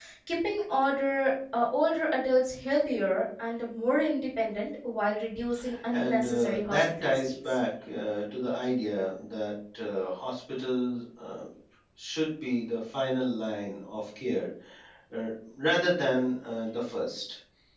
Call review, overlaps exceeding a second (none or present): present